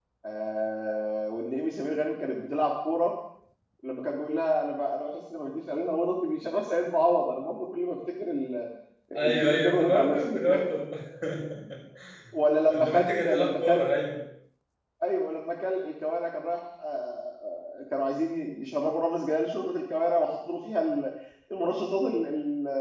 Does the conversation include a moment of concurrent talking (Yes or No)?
Yes